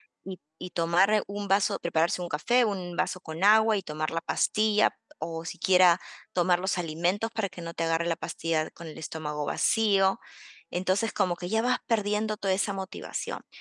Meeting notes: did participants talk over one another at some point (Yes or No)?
No